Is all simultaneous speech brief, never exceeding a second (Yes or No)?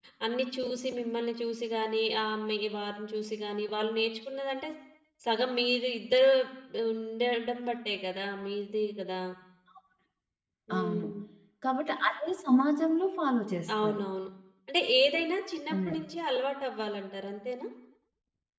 Yes